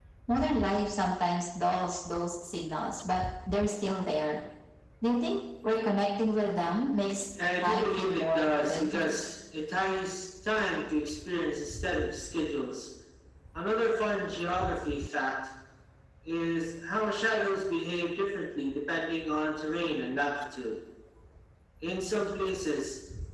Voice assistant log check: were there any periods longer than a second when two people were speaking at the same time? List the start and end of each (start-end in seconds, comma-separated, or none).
7.6-9.1